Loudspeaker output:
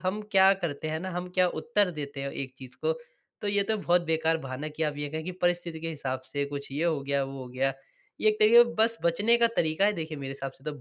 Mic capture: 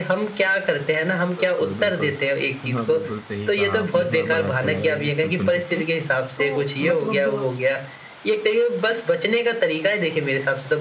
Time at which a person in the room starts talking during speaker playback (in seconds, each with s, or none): 1.4 s